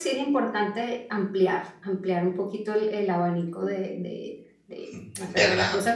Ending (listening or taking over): listening